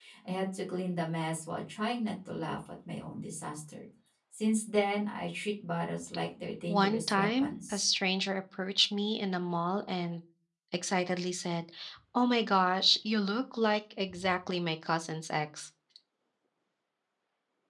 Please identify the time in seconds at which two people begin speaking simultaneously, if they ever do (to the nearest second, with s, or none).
7 s